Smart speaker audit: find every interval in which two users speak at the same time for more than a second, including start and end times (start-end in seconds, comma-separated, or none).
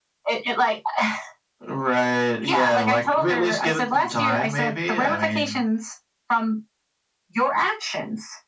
2.4-5.6